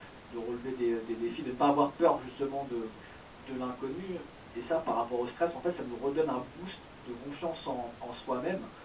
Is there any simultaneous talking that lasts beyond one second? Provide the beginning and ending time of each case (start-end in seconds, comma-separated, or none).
none